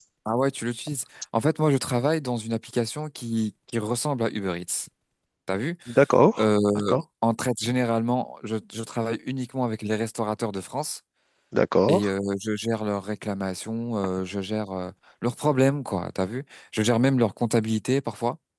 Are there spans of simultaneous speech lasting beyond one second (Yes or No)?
No